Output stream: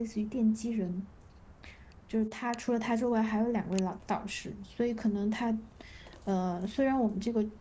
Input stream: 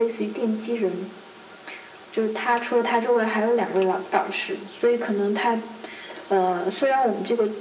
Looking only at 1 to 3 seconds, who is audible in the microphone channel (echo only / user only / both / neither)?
echo only